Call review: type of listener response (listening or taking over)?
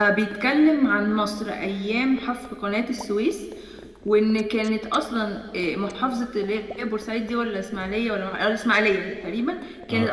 listening